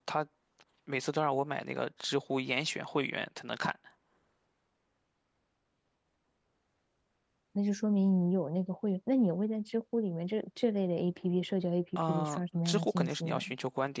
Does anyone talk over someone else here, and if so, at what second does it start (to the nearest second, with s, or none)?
12 s